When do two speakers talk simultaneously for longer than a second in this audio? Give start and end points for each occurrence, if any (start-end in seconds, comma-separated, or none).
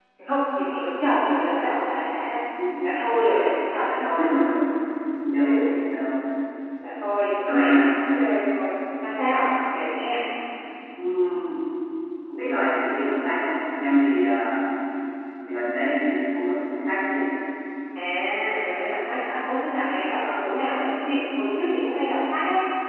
none